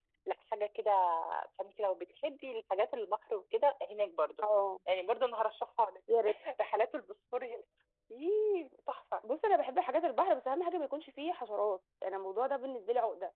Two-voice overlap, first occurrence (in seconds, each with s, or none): none